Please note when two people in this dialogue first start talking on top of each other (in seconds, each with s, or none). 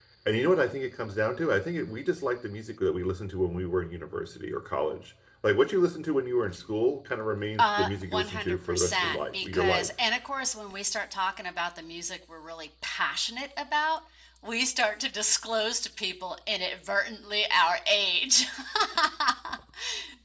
7.6 s